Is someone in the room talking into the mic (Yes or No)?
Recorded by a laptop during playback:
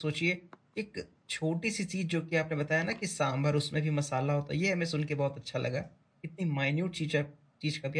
Yes